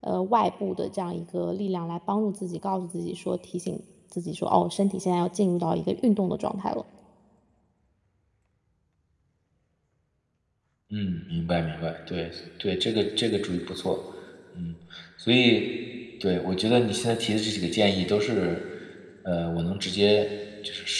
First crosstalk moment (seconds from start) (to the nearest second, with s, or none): none